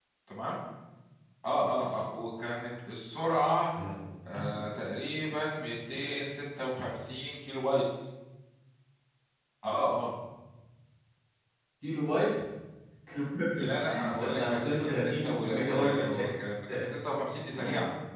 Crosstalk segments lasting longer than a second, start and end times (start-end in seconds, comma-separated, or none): 13.6-16.3